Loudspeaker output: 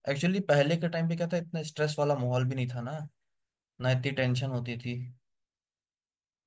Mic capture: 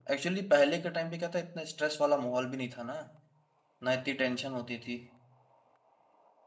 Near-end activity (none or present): none